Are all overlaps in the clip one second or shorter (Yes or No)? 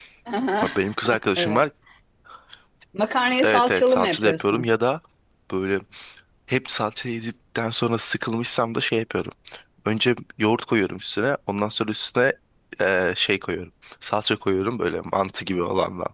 No